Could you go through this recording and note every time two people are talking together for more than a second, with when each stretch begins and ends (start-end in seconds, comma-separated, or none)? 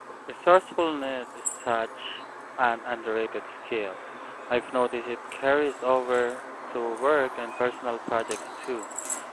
none